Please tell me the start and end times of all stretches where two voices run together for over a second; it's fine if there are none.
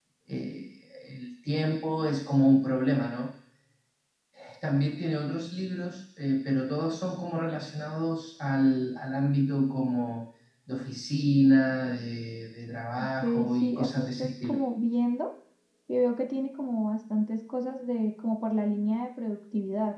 13.2-14.6

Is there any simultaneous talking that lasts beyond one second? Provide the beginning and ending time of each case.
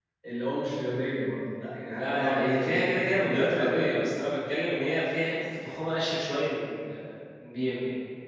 2.0-3.8

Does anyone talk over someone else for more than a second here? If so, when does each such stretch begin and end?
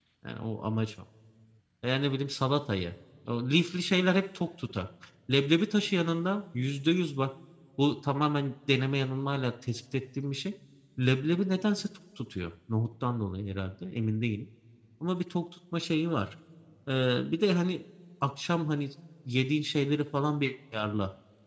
none

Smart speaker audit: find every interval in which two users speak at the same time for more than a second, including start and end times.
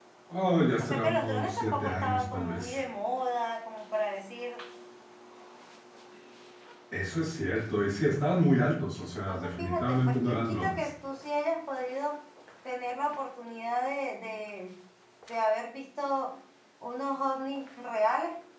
0.8-2.8, 9.1-10.8

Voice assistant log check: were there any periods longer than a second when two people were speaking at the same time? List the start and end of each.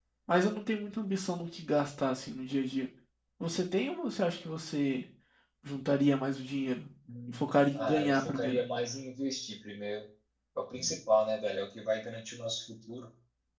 7.3-8.6

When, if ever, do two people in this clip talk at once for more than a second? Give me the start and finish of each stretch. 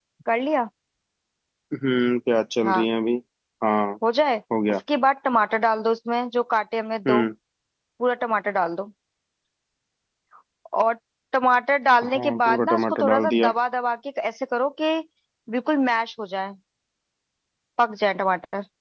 12.1-13.5

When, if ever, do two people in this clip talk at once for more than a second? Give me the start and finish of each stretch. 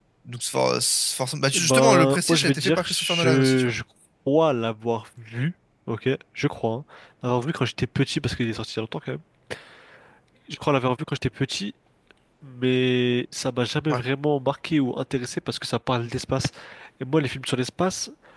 1.5-3.7

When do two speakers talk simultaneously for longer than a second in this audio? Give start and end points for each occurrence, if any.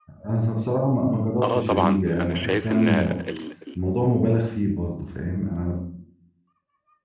1.4-3.2

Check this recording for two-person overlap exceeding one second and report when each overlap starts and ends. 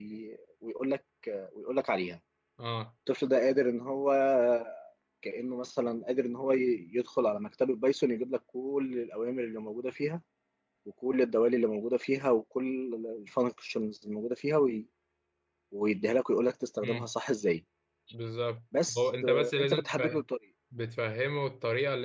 18.9-20.2

